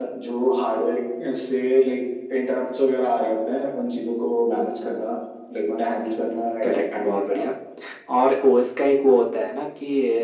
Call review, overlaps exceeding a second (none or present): present